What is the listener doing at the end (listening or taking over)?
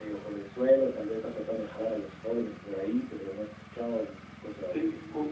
taking over